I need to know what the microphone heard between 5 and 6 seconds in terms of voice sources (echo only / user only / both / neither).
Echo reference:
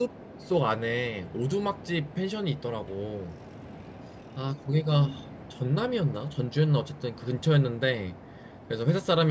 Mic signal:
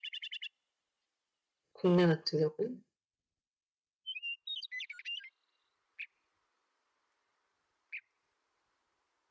neither